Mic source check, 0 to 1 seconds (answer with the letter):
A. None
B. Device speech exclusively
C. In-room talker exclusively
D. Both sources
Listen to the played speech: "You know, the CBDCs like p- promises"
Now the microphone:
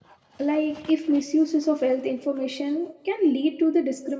C